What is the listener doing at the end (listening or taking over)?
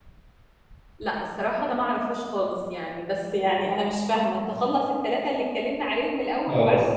listening